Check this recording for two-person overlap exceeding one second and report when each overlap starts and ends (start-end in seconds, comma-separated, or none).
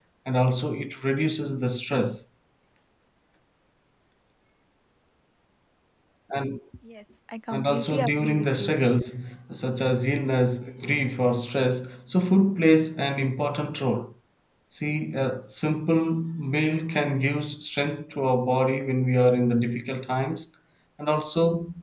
7.5-8.8